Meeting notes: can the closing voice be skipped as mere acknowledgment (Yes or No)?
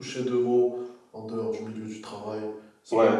No